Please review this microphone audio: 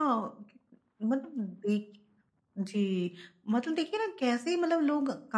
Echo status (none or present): none